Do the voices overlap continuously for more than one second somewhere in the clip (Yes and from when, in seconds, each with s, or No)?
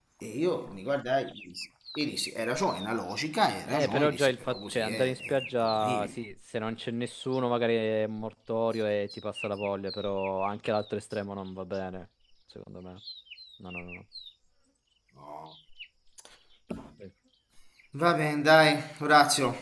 Yes, from 3.7 s